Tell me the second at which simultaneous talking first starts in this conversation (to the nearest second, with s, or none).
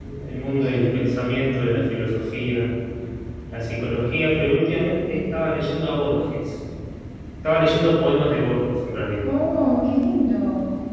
none